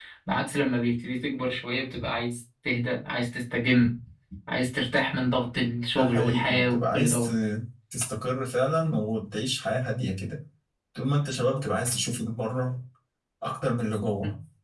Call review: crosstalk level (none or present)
present